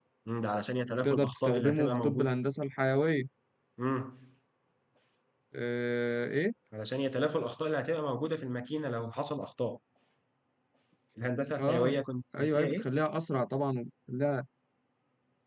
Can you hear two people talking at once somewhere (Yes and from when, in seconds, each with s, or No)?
Yes, from 1.0 s